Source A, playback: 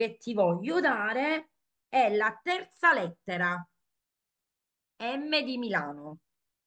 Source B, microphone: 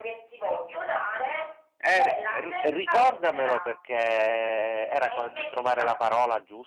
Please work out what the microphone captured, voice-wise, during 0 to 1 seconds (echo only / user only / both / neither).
echo only